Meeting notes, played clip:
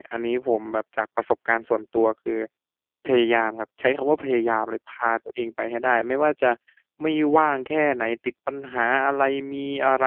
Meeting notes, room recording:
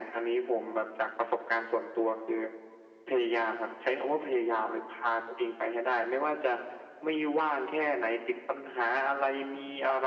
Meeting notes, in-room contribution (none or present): none